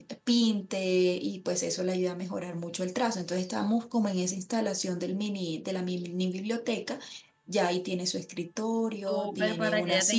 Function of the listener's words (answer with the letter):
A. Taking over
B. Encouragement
A